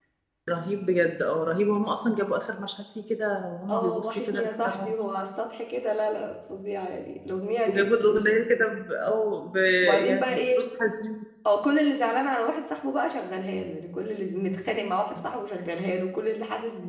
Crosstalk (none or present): present